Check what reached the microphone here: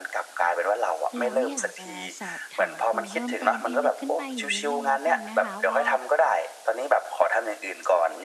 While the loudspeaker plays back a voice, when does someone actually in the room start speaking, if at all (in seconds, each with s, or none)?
1.2 s